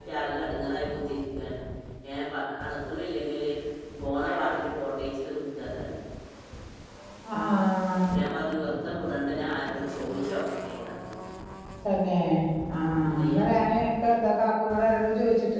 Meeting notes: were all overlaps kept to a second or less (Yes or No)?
Yes